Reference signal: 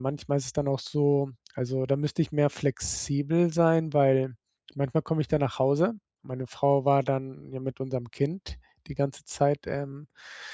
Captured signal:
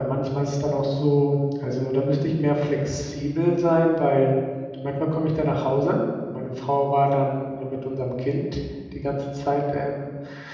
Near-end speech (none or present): none